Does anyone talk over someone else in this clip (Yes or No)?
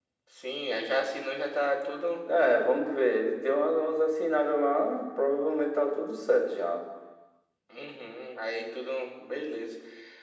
No